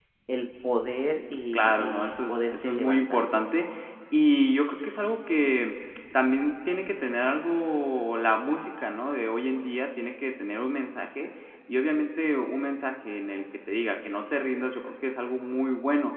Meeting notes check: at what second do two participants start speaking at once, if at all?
1.5 s

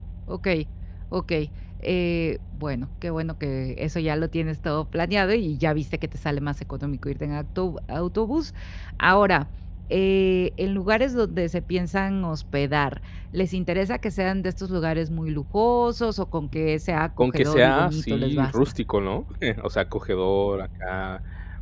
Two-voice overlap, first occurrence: 17.2 s

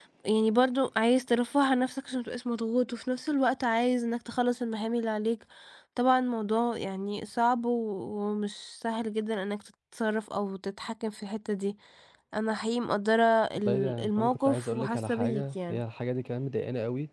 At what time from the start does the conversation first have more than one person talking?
13.6 s

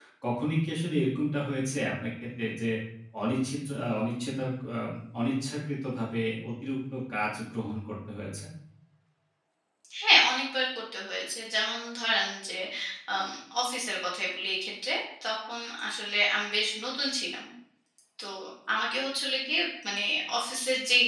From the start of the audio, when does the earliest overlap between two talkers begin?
none

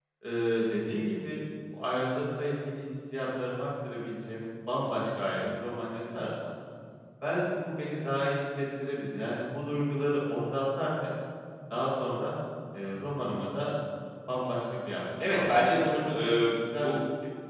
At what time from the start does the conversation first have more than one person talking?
15.2 s

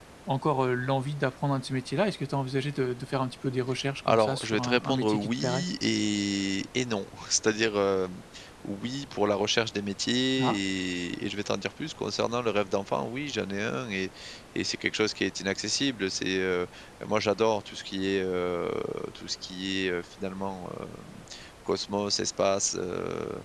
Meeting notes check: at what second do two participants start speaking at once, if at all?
4.0 s

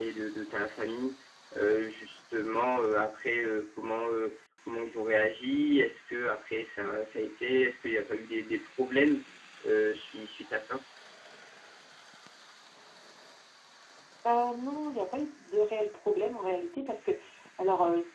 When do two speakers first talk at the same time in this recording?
none

